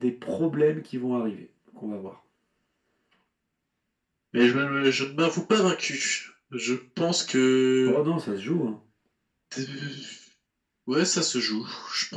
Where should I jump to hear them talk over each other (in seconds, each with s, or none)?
none